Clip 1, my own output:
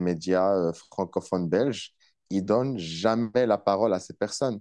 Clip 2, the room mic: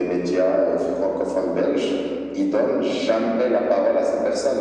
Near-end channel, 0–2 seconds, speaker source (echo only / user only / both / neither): echo only